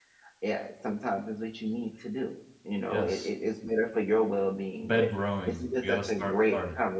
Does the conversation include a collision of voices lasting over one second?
Yes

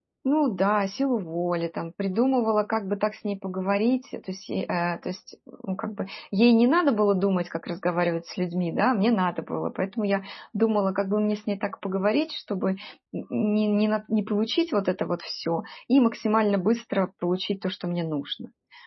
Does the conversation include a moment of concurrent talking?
No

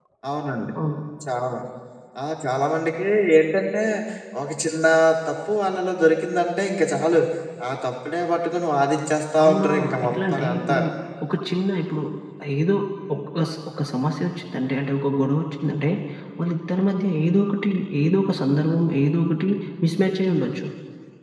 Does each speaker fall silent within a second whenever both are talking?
No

